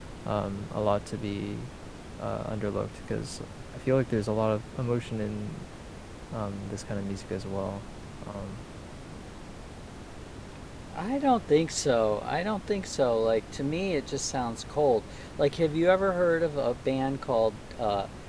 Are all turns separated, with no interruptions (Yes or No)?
Yes